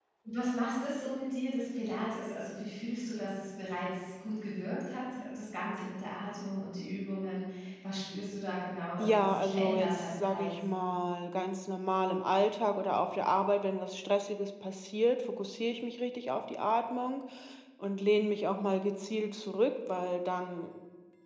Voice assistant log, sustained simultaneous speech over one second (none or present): present